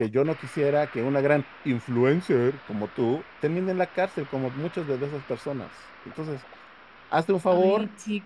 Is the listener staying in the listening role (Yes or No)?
No